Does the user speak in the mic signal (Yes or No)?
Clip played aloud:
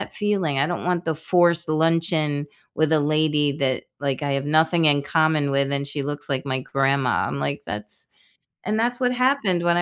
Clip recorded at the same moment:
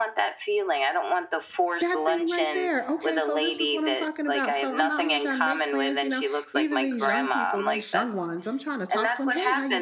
Yes